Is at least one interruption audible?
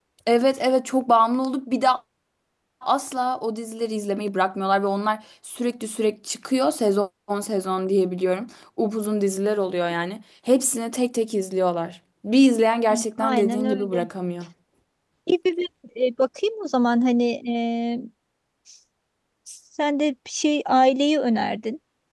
Yes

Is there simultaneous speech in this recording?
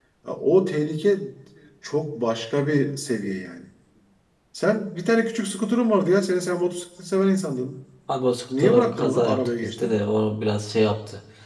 Yes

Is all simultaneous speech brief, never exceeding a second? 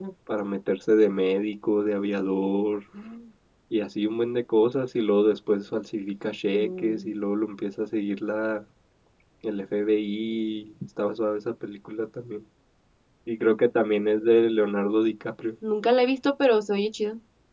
Yes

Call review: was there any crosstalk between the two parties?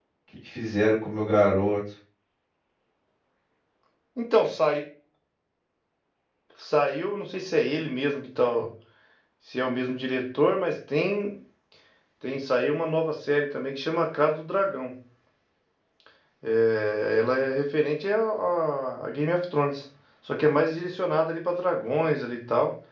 No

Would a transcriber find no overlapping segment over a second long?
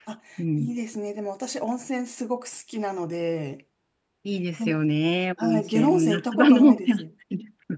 No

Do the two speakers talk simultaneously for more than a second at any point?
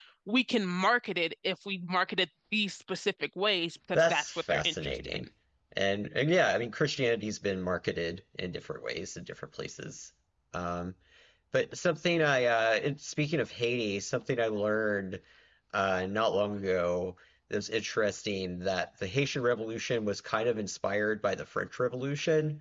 Yes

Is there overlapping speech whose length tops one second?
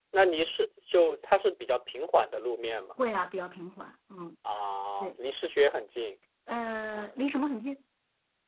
No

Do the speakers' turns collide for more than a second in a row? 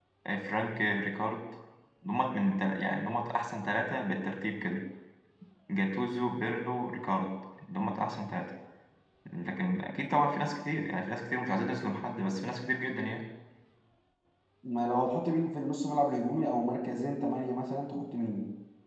No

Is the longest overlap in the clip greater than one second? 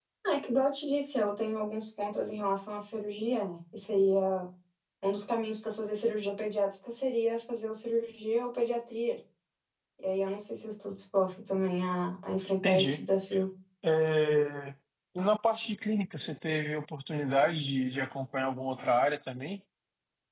No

